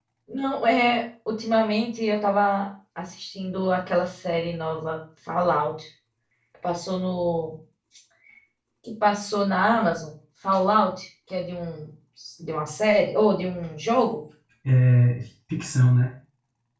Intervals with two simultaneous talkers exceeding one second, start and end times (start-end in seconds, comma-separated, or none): none